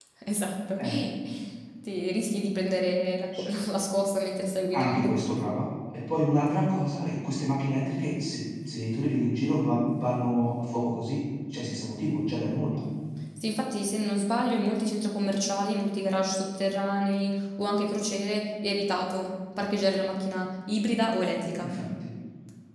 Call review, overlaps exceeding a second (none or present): none